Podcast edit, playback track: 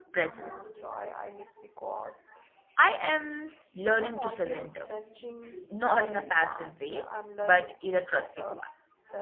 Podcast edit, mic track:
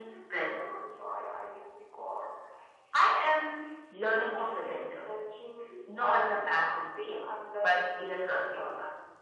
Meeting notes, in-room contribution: none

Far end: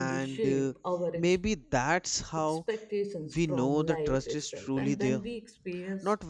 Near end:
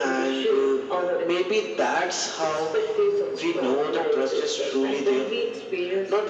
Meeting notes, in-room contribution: none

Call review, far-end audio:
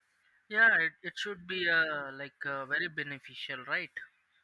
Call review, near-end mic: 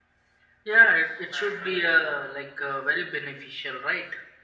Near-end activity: present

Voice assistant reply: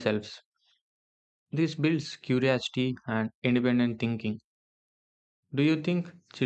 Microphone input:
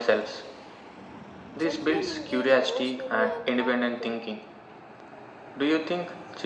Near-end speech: present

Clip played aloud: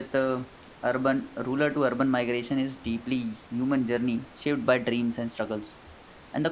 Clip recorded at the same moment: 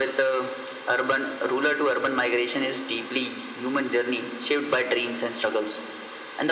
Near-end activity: none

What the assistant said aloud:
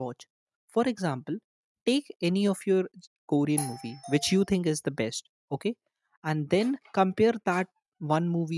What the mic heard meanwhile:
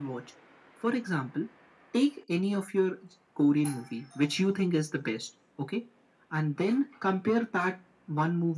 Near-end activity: none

